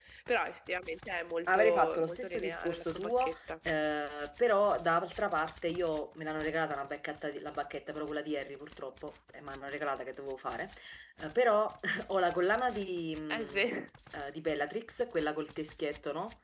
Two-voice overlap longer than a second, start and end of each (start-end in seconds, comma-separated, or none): 1.5-3.4